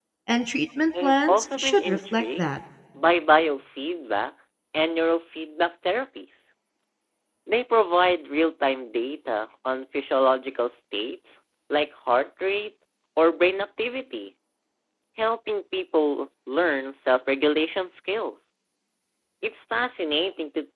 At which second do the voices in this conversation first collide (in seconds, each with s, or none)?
1.0 s